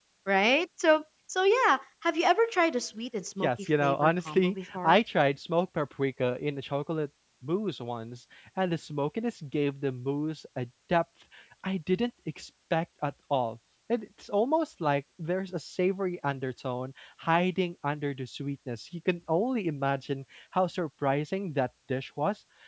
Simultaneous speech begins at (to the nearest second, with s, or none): 3 s